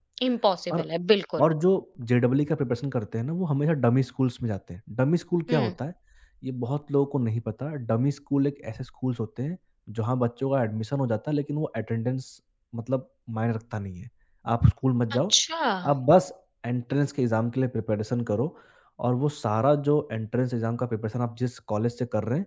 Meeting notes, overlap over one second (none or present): none